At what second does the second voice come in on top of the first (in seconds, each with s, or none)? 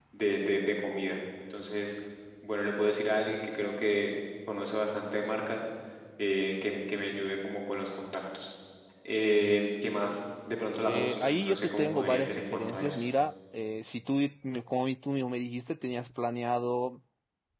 10.8 s